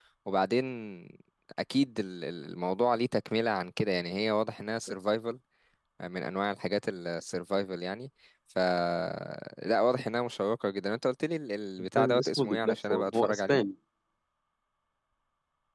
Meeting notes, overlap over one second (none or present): present